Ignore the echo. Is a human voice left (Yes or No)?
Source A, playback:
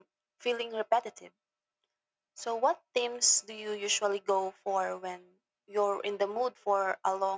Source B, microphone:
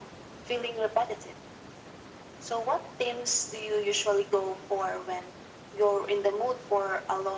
No